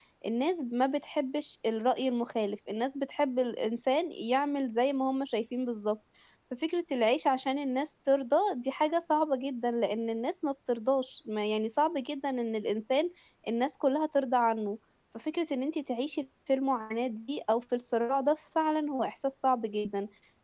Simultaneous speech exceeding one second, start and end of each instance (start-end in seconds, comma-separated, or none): none